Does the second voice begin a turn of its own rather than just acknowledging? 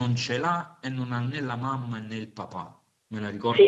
Yes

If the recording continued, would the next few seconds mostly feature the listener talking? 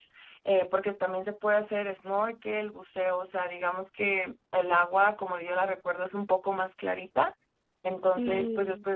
No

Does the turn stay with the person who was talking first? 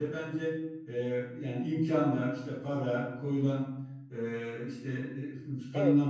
Yes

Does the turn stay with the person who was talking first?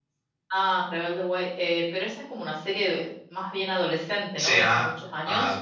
No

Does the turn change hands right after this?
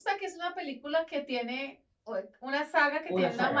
No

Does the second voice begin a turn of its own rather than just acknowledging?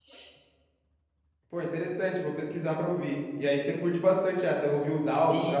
Yes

